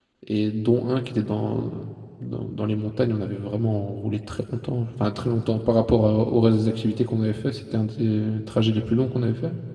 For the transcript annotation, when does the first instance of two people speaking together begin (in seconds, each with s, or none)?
none